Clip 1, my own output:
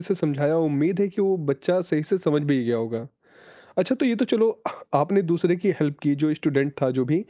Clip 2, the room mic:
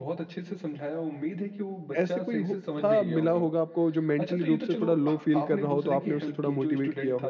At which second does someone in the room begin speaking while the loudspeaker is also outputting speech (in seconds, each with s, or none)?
2.0 s